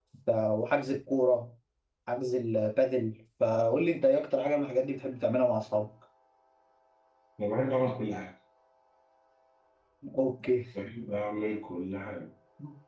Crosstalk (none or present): none